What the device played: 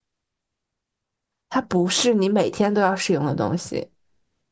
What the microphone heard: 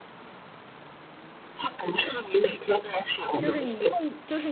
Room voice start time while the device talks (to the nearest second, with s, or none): 3 s